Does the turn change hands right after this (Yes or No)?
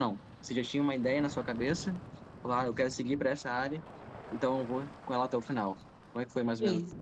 Yes